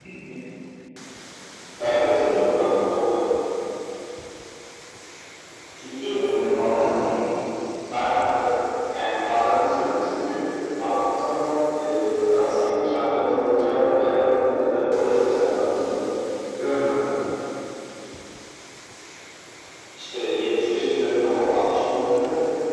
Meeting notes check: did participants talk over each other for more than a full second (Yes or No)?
No